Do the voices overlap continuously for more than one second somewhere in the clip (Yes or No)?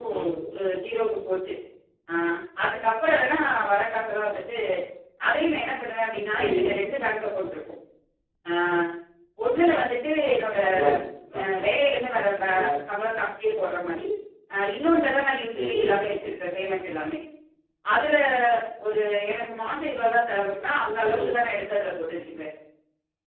No